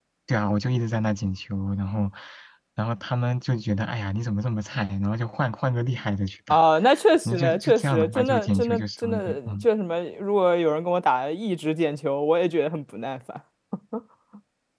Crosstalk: present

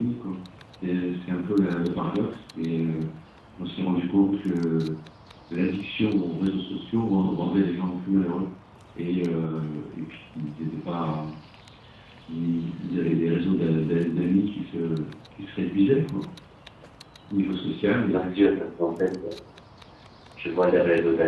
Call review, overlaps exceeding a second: none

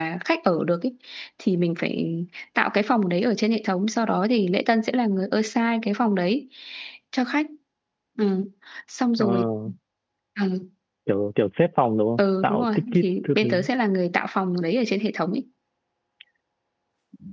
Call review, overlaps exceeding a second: present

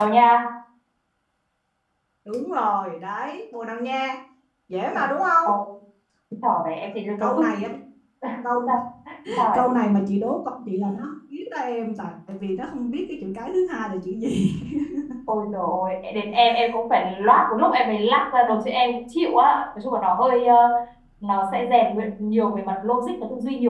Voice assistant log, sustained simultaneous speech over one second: none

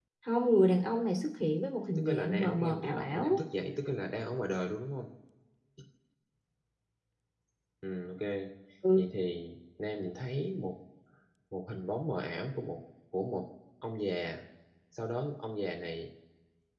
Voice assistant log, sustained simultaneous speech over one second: present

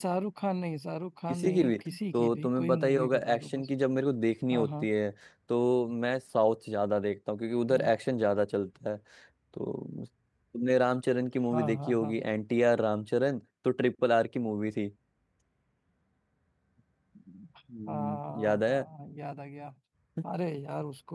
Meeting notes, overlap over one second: present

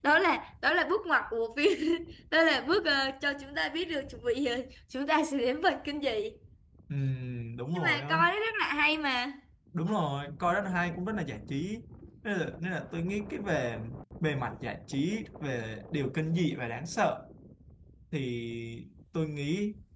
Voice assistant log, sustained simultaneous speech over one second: none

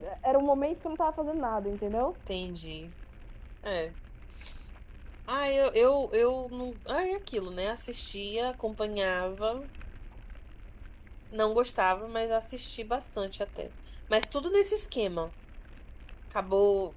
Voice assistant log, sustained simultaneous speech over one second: none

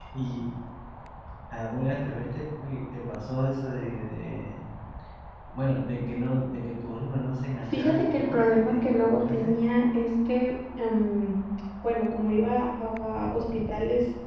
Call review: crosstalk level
present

